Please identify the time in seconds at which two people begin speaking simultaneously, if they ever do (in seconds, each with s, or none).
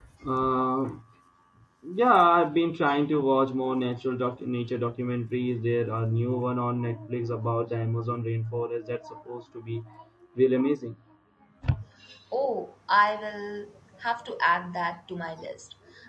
none